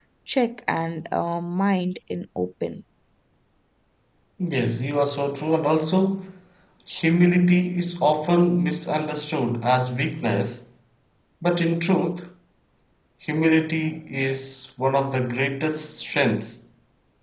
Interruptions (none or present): none